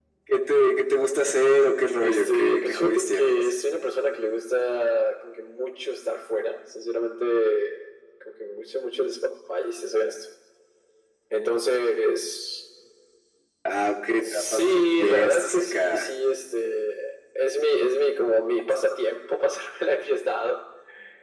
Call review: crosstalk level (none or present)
present